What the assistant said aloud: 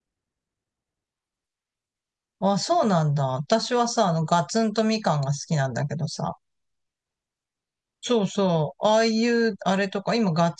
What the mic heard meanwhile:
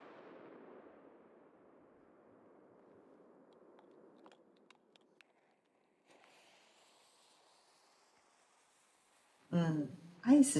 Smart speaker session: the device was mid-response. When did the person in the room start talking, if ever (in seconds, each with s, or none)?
9.5 s